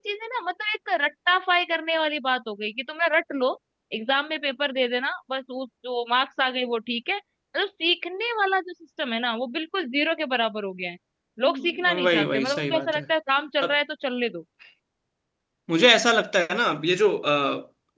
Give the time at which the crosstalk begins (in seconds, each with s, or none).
11.4 s